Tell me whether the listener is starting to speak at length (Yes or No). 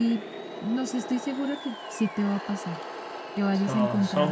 Yes